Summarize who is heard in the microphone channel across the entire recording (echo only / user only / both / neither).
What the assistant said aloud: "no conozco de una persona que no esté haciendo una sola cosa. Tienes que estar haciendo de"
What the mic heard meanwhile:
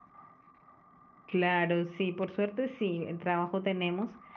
user only